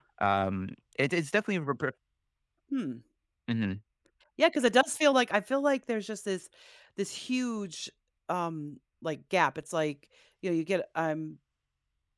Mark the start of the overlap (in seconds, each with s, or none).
none